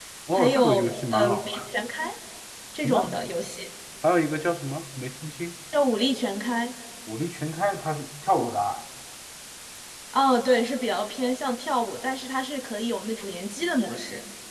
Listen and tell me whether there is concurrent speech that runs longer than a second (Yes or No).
Yes